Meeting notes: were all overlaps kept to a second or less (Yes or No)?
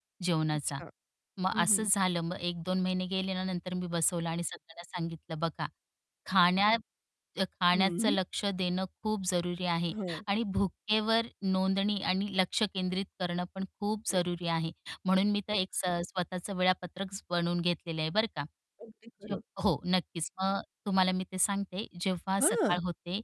Yes